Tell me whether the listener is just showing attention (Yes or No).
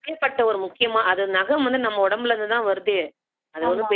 Yes